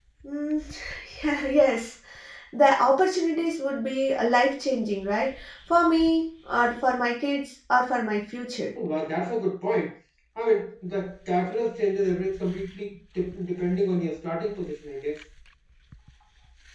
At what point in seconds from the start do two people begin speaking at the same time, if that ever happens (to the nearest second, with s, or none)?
none